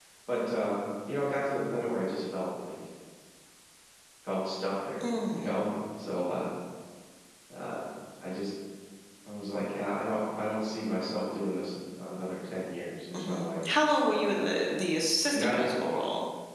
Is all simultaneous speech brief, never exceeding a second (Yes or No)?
Yes